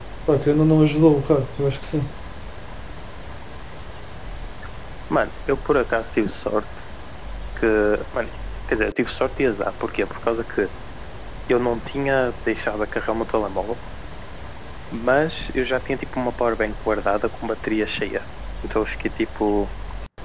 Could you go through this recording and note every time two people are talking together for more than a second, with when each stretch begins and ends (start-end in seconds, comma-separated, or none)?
none